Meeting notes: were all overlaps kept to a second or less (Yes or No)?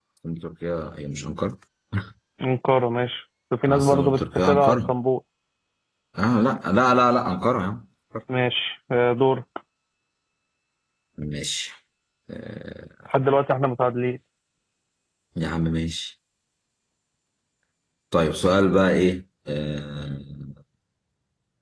No